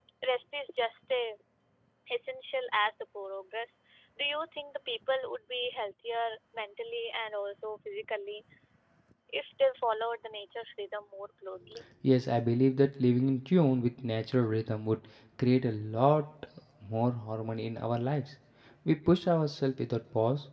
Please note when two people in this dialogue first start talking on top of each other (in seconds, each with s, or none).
none